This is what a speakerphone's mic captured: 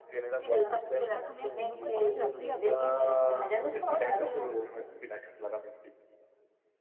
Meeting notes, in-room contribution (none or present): present